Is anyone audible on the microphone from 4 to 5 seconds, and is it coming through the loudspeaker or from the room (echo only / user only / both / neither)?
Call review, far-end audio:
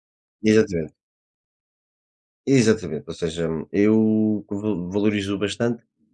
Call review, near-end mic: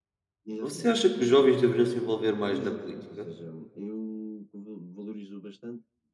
echo only